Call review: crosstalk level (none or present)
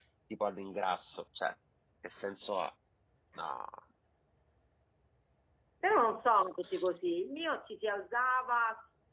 none